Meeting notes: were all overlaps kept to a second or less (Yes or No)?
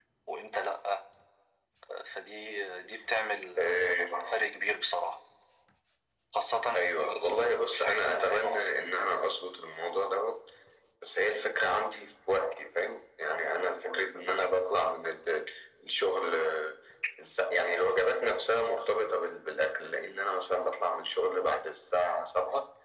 No